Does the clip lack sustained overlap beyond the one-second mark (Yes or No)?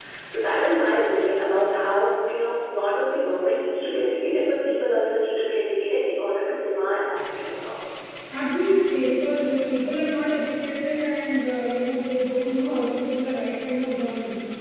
Yes